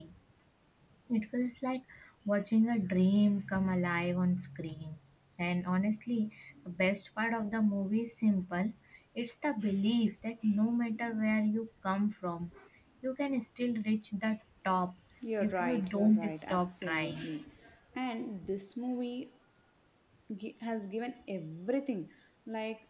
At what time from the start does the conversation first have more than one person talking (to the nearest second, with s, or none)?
15 s